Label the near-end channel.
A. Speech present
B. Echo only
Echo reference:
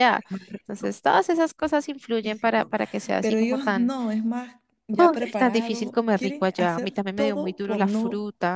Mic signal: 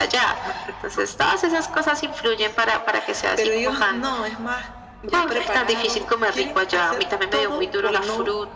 B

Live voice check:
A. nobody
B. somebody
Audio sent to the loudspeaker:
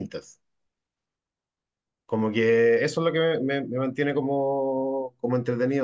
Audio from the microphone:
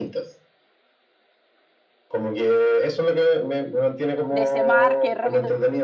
B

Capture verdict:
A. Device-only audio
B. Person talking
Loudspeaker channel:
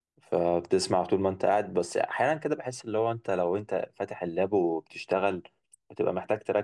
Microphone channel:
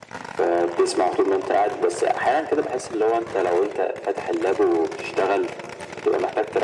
A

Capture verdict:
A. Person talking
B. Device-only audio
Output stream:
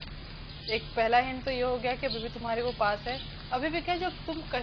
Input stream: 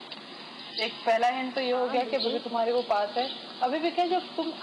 A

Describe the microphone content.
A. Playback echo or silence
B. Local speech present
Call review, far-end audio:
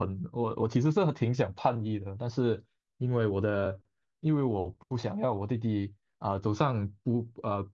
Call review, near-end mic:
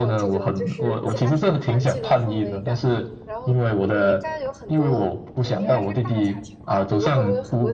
B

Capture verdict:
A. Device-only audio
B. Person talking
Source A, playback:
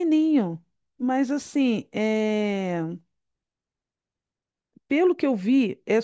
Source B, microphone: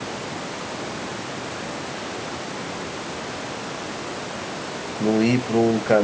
B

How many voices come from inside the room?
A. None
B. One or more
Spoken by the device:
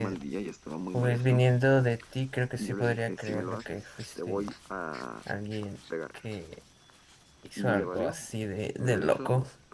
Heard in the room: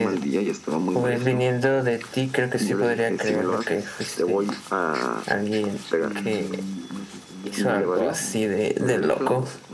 B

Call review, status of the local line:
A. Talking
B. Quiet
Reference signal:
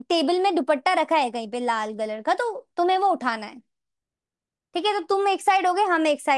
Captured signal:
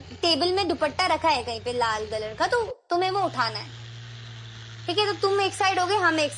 B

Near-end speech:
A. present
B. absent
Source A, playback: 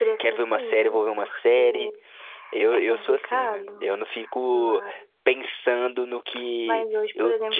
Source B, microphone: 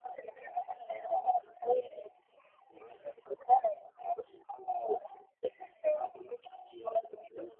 B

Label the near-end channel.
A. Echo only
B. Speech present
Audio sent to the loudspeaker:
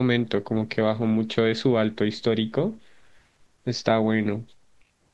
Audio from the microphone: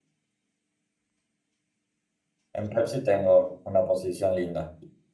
B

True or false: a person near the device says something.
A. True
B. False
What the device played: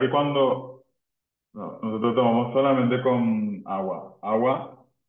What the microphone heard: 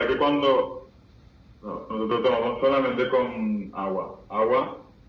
B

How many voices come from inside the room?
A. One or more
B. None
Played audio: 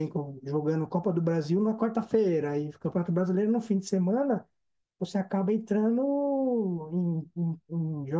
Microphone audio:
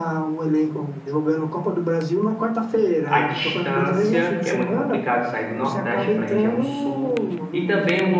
A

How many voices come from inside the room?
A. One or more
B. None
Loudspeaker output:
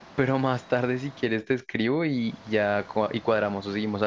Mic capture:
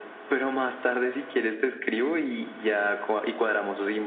B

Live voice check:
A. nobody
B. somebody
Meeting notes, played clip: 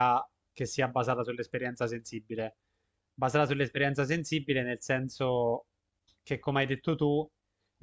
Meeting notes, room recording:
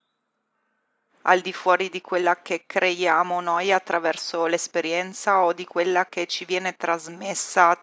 B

